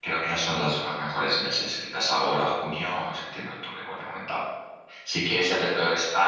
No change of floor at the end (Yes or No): Yes